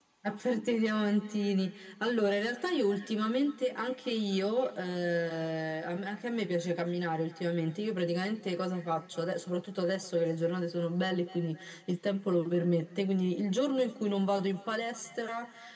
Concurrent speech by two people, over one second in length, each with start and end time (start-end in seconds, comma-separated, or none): none